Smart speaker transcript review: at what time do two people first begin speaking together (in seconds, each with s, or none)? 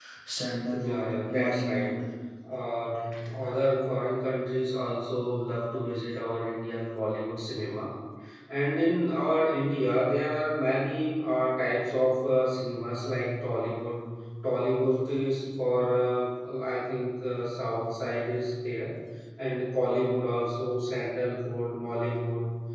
0.7 s